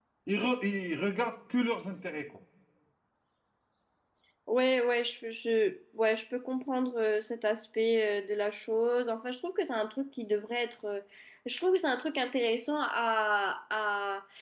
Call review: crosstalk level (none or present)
none